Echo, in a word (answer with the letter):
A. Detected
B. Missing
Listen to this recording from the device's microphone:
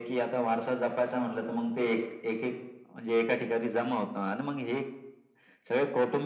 A